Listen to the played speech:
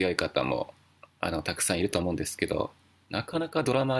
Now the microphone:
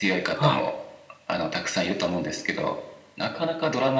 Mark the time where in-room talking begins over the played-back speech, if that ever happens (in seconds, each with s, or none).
0.3 s